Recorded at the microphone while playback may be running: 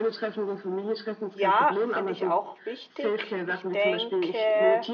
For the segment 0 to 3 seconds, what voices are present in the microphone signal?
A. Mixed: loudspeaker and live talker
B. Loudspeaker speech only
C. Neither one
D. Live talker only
A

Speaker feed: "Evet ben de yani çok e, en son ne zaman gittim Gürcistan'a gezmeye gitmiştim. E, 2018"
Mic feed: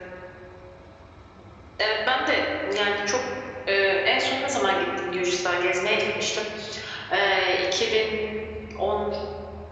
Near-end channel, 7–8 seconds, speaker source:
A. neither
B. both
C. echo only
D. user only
C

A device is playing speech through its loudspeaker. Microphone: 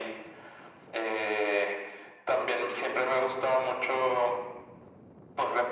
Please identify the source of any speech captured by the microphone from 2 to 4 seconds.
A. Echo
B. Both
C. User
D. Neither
A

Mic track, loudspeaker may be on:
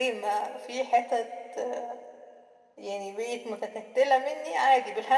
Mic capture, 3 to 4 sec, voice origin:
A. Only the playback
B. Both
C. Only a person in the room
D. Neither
A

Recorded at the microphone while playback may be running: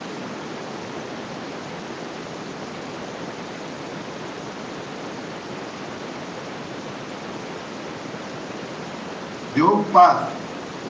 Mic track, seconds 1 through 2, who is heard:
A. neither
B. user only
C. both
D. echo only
A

